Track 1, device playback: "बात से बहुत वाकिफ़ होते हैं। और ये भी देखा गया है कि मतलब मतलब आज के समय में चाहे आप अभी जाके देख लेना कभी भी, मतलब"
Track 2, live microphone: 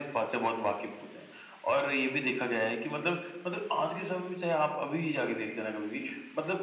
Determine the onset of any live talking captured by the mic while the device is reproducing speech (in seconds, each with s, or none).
none